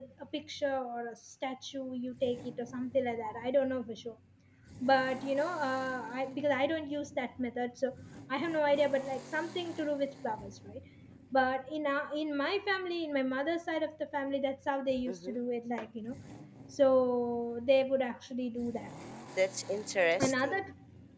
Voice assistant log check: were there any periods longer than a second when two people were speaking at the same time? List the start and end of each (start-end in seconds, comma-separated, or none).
none